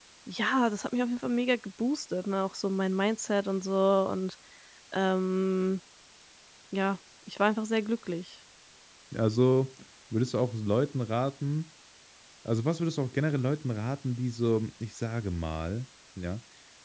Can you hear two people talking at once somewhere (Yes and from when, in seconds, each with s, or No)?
No